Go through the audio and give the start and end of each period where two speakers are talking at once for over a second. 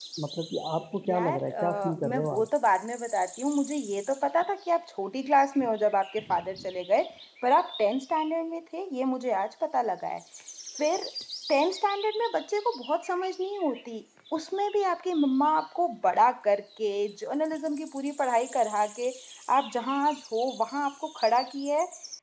1.1-2.5

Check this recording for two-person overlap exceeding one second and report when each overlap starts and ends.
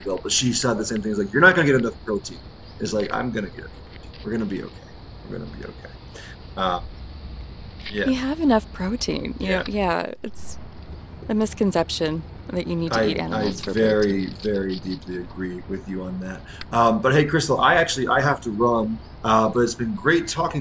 12.9-14.2

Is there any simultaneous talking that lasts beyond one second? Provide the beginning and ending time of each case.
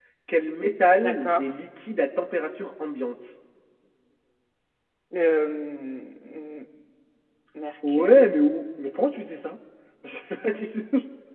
none

